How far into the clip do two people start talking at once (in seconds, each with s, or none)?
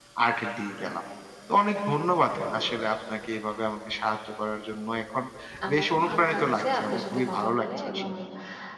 5.7 s